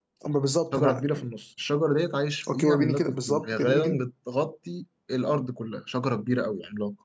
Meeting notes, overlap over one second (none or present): present